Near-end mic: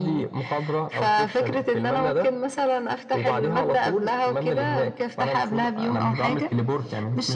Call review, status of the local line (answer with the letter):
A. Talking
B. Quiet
B